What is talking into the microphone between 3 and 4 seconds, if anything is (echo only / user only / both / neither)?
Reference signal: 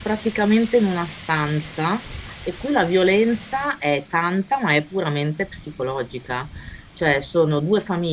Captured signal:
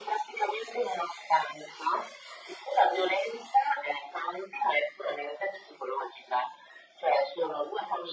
echo only